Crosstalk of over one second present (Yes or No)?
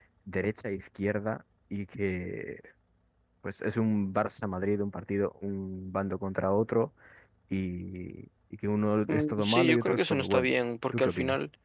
Yes